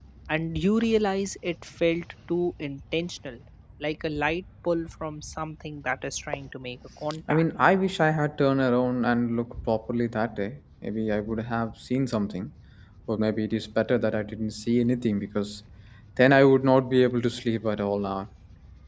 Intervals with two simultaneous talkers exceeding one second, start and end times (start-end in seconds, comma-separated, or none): none